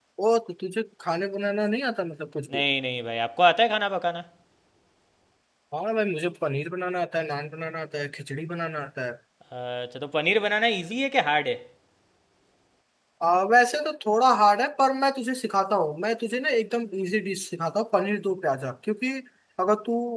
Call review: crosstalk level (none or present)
none